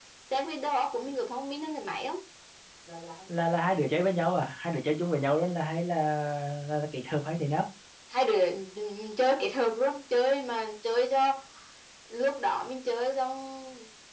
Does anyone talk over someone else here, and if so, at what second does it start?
none

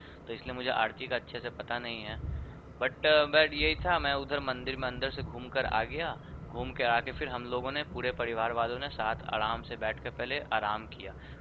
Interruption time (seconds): none

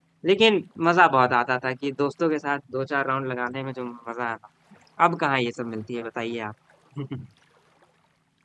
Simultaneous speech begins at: none

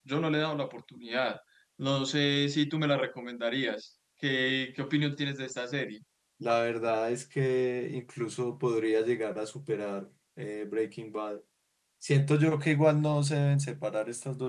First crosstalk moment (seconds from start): none

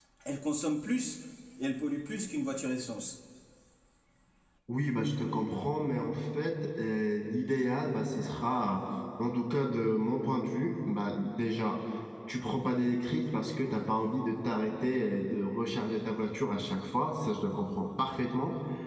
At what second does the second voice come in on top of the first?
none

